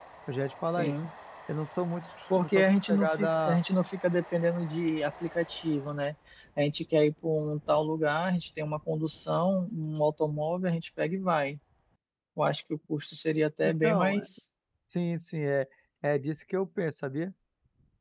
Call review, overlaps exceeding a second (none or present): present